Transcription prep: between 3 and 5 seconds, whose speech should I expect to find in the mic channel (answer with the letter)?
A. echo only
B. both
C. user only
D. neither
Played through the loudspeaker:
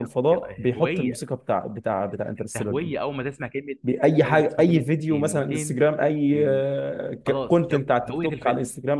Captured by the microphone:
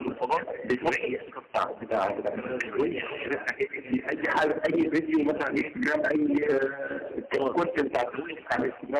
B